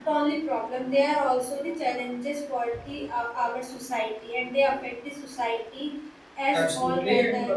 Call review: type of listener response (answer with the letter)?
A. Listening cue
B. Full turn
B